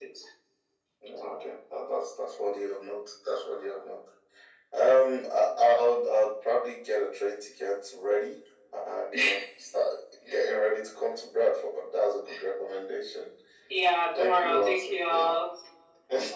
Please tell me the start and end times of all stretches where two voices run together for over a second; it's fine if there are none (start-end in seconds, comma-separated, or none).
14.2-15.3